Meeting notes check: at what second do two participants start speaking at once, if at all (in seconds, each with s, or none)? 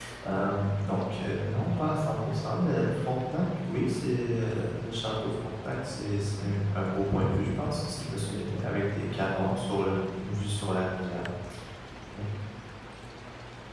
none